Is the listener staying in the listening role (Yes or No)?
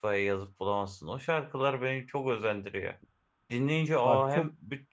Yes